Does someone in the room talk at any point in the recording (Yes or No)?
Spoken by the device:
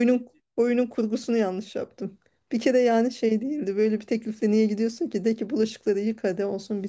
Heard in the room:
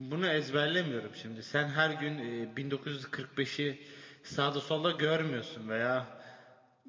Yes